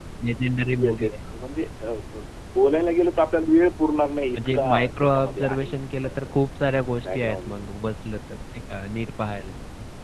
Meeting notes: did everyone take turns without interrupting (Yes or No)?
No